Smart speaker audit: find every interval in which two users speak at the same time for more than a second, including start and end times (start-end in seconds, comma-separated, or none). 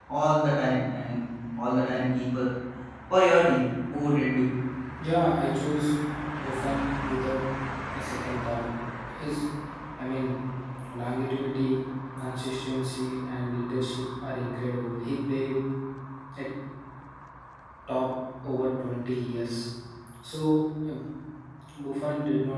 none